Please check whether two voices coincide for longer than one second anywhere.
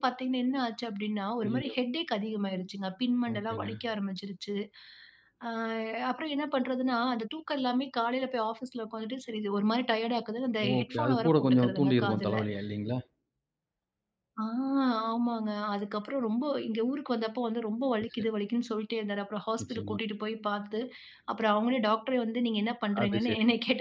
Yes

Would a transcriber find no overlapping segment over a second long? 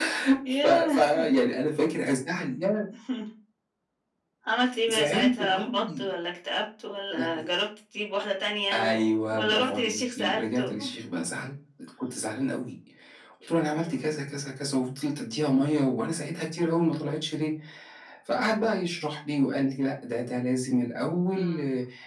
No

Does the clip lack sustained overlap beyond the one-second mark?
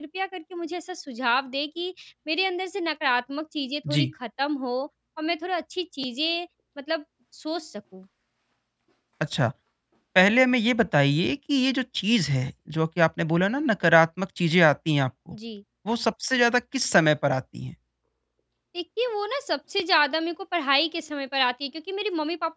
Yes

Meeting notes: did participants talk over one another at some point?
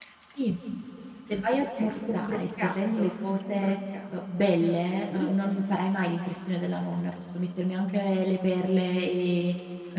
Yes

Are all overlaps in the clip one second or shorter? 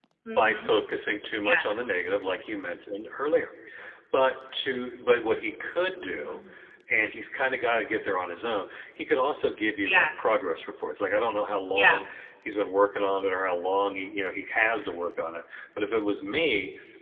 Yes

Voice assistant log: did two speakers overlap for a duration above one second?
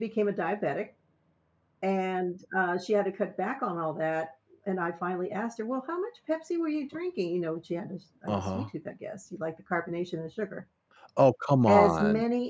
No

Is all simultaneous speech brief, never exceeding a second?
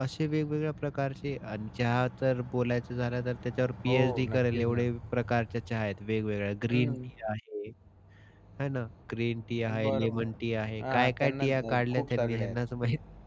No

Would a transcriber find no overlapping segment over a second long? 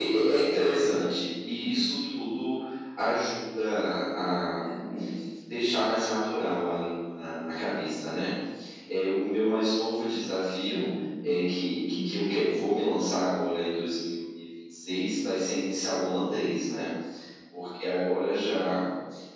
Yes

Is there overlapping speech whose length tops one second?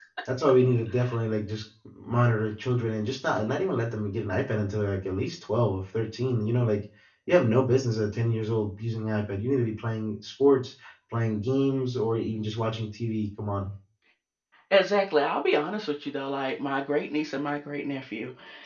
No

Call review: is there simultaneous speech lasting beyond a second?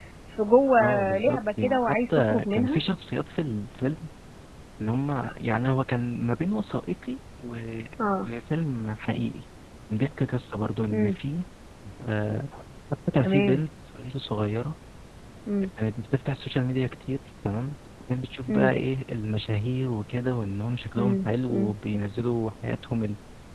Yes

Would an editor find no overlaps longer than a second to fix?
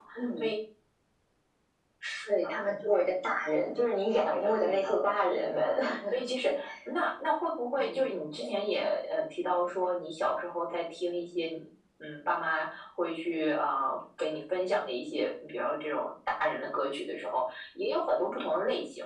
No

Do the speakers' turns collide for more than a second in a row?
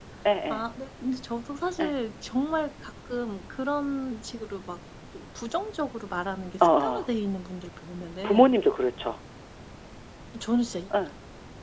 No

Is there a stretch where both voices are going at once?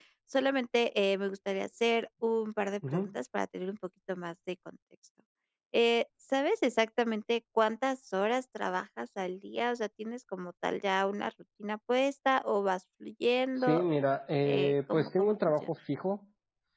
Yes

